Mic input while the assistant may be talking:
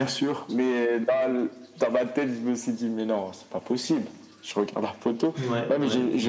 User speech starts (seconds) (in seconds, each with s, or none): 5.3 s